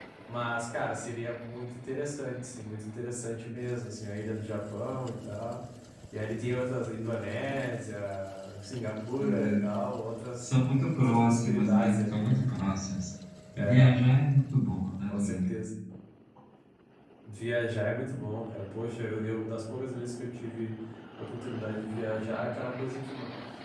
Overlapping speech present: Yes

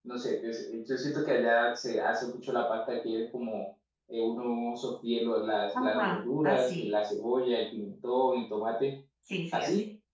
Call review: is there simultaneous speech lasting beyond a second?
Yes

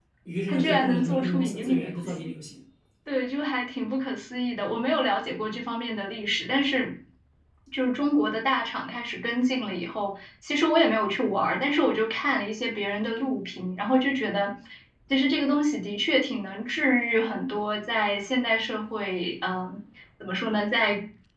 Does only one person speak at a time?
No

